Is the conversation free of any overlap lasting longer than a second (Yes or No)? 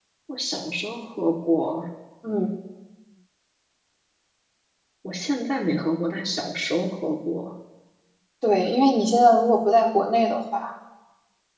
Yes